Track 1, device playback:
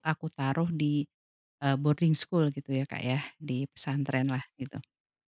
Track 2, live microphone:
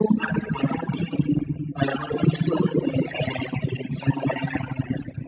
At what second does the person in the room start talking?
none

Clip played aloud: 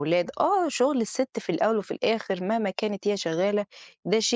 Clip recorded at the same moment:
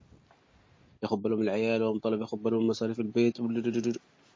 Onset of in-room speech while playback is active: 1.0 s

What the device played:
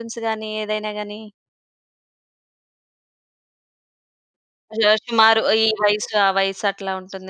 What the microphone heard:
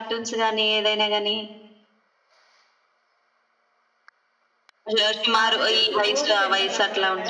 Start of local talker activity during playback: 5.3 s

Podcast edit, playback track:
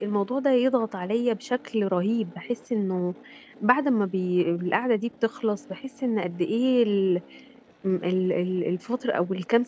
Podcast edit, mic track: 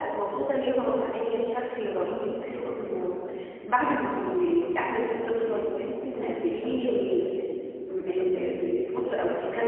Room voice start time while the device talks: 1.8 s

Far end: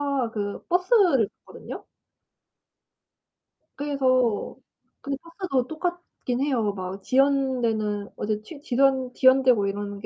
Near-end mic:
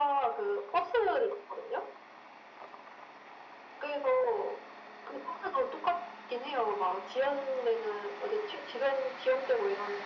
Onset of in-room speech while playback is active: none

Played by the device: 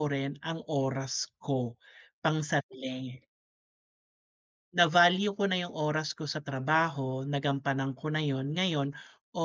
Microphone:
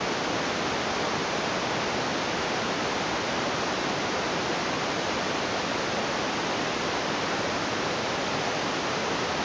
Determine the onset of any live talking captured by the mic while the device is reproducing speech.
none

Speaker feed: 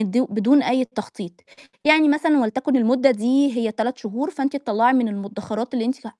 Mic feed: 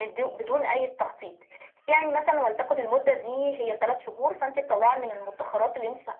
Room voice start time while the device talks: none

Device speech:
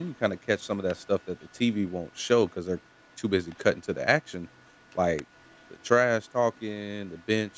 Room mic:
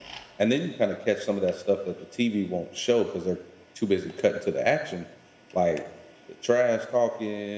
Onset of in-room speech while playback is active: none

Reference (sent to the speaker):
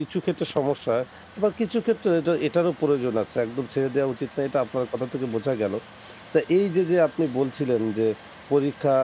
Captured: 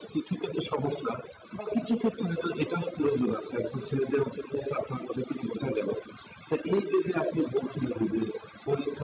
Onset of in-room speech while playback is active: none

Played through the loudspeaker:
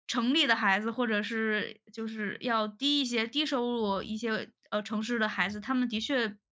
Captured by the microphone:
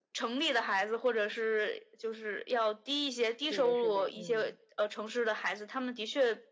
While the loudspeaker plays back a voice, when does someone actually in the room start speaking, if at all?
3.4 s

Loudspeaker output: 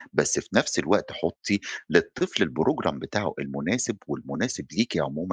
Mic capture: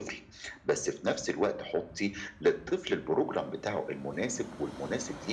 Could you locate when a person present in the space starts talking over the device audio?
none

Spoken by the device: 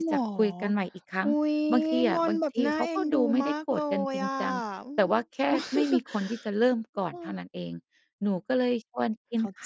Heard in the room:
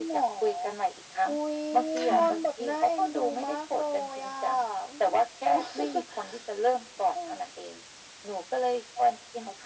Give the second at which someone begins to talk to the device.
1.9 s

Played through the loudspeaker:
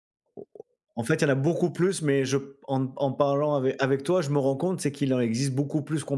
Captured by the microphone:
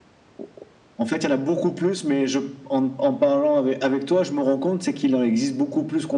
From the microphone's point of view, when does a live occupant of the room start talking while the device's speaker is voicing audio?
none

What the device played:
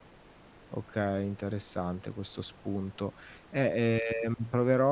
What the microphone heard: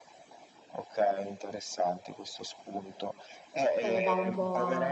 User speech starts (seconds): 3.8 s

